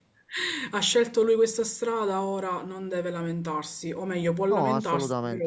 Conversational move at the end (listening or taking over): listening